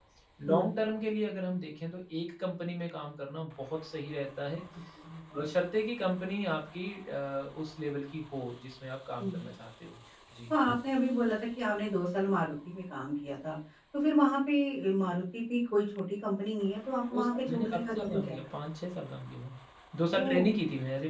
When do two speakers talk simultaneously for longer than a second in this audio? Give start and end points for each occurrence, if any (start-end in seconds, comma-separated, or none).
17.1-18.4